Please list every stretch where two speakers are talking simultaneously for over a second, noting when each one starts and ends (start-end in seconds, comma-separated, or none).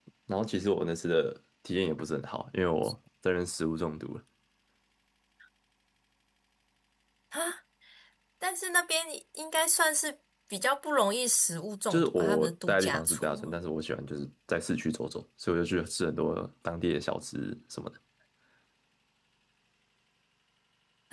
11.9-13.6